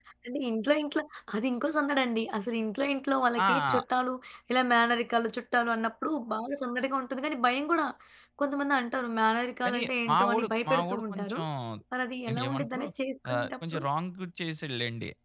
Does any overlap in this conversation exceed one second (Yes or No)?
Yes